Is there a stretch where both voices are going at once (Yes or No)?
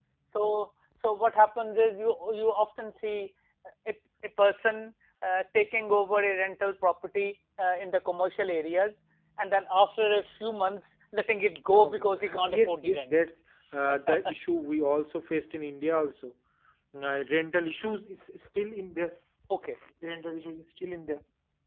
Yes